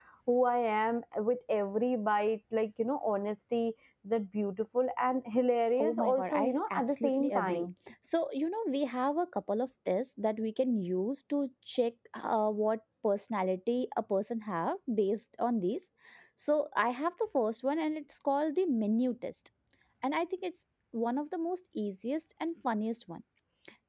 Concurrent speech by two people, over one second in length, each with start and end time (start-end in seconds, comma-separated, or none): 5.8-7.7